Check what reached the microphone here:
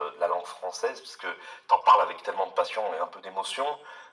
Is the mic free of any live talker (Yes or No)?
Yes